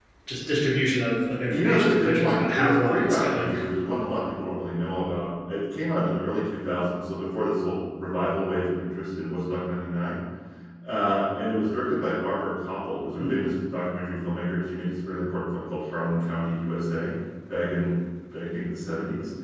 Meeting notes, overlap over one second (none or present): present